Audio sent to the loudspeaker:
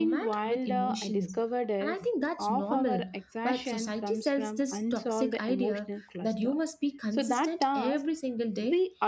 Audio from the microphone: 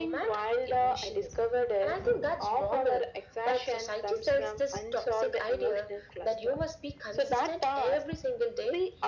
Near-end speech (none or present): none